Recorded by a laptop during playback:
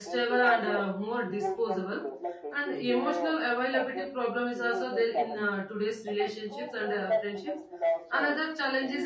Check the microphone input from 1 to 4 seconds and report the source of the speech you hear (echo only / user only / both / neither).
both